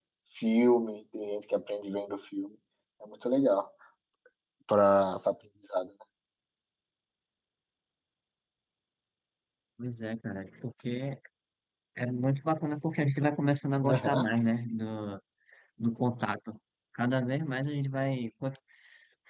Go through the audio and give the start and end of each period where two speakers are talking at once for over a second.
none

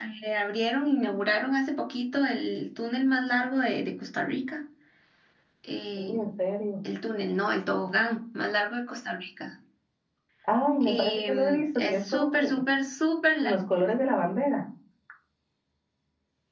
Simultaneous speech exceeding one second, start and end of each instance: 10.8-12.5

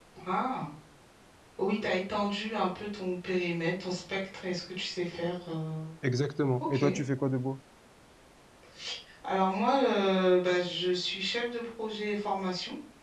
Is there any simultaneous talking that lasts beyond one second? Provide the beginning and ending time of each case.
none

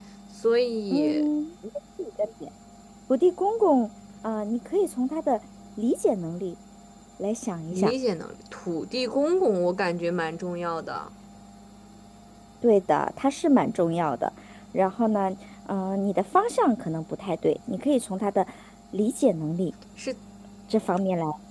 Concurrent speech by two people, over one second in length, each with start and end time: none

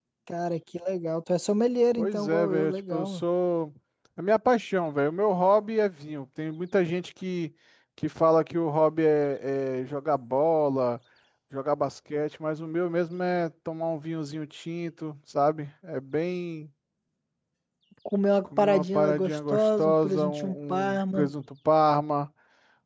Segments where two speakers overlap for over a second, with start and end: 2.0-3.2, 18.4-21.3

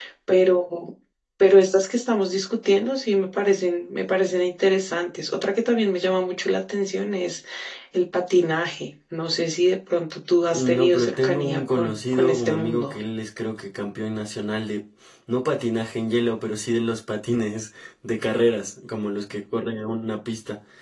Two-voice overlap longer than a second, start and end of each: 10.5-12.9

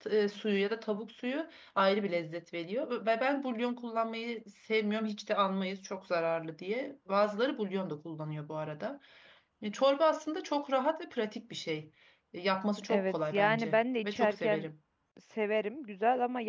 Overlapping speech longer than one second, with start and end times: 12.9-14.7

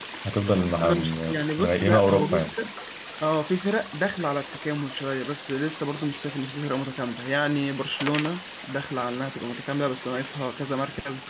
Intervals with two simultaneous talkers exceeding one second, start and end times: 0.8-2.5

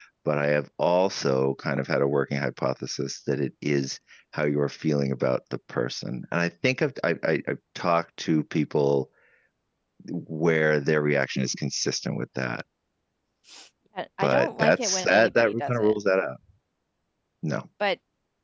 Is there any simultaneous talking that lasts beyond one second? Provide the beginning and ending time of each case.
14.2-16.0

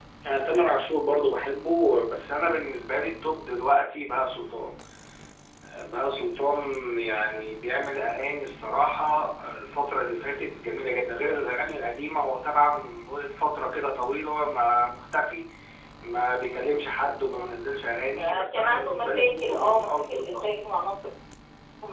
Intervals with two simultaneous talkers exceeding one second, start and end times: 18.1-20.5

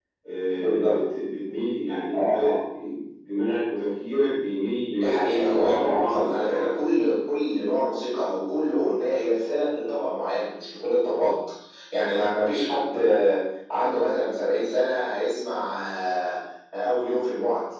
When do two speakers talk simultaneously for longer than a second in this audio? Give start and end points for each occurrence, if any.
5.2-6.8

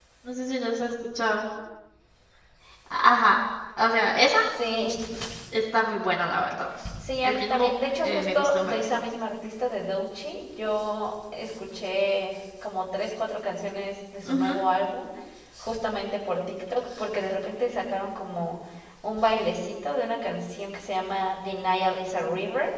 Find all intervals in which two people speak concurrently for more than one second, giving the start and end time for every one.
7.2-9.0

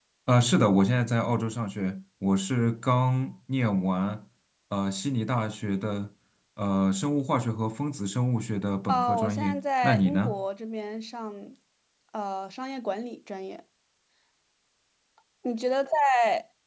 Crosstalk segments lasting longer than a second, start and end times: 8.9-10.4

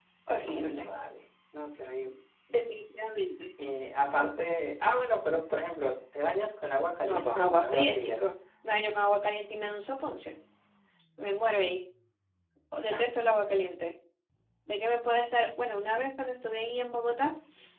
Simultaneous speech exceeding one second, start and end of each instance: 7.0-8.2

